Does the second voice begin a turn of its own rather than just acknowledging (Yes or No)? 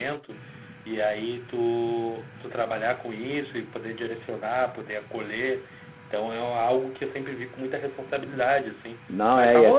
Yes